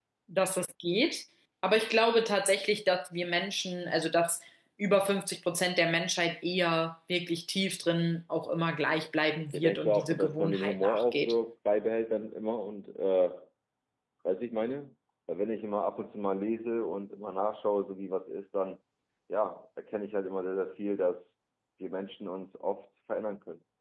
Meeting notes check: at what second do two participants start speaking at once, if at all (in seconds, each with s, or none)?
9.5 s